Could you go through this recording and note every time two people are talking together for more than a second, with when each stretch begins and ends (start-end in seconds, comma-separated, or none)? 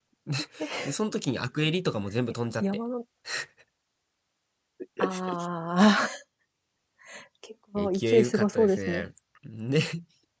7.8-9.0